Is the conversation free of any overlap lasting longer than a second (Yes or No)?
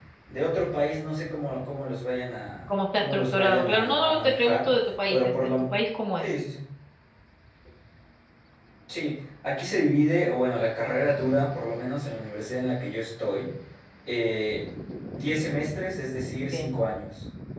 No